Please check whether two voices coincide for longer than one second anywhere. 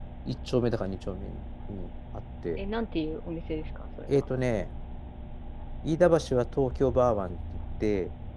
No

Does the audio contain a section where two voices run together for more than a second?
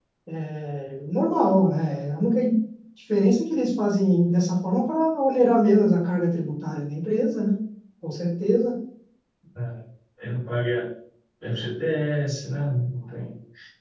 No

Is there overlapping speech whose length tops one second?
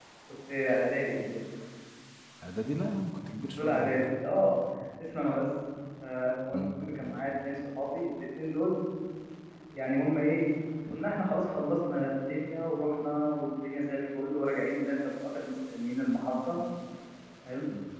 No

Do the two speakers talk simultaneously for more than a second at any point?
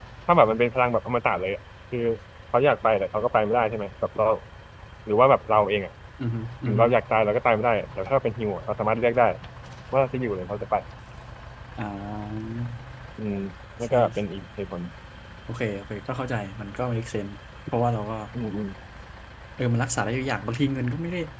No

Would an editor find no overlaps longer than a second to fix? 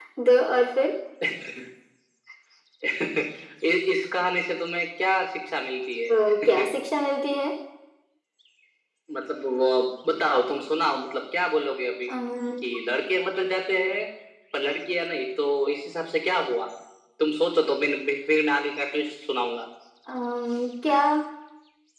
Yes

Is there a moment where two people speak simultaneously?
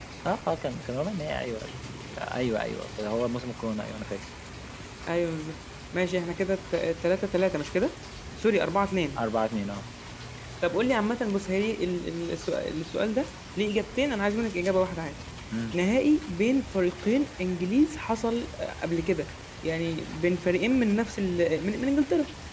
No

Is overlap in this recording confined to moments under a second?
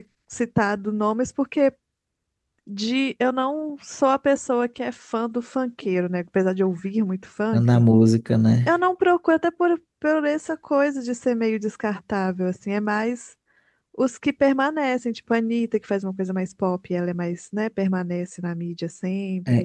Yes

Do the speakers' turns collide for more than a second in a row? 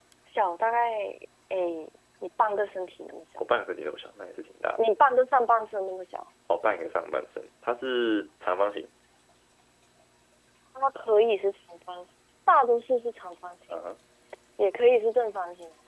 No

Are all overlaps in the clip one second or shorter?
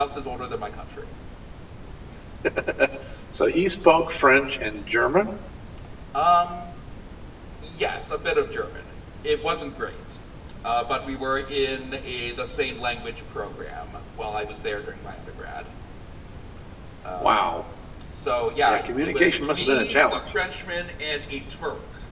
No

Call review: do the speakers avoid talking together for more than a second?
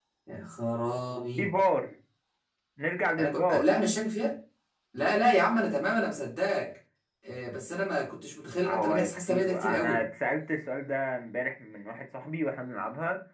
No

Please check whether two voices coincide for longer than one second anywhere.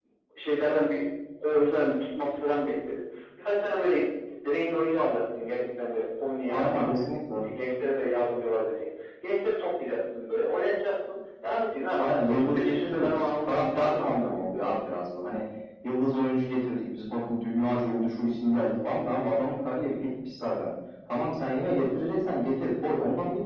Yes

